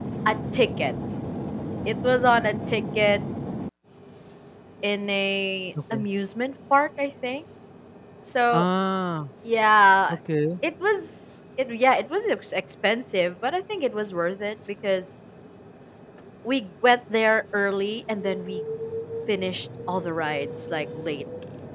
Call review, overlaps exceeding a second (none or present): none